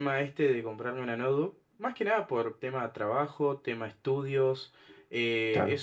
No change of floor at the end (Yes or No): Yes